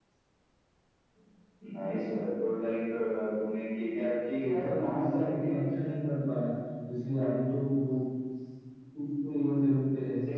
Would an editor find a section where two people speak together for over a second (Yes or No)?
Yes